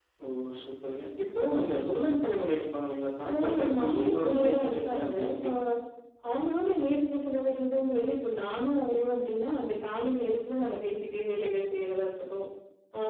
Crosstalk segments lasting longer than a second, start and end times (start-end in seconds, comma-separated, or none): 3.3-5.4